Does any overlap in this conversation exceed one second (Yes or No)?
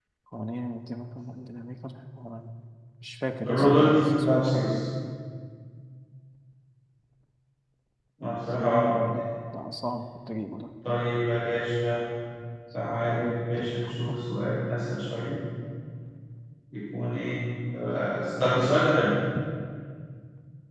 Yes